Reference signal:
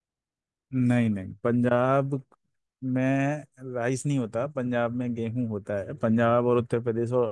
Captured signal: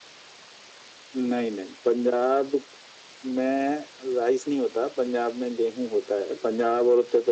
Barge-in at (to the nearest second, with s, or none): none